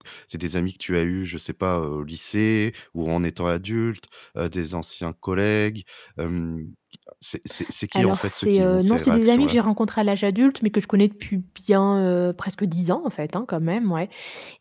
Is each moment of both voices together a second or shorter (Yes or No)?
No